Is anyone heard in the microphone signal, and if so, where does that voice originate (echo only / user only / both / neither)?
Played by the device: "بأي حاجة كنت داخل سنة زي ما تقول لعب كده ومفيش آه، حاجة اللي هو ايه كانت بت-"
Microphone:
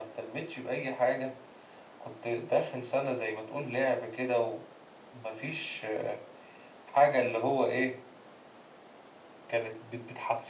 echo only